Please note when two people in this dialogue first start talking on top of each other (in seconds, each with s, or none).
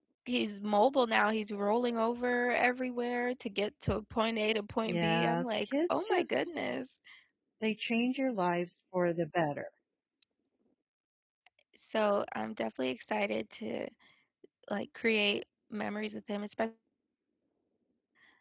4.8 s